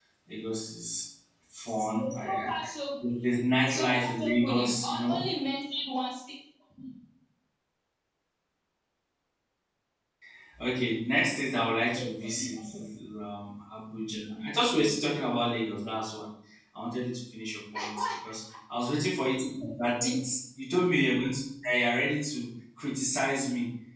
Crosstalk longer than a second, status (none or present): present